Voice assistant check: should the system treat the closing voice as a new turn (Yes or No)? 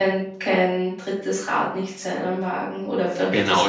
Yes